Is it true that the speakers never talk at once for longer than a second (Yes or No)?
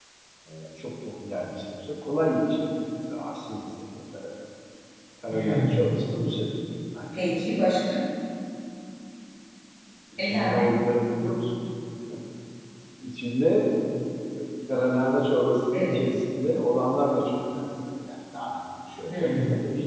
Yes